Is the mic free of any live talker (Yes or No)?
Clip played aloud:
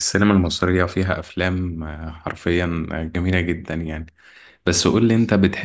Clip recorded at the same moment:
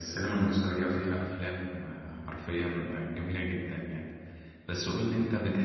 Yes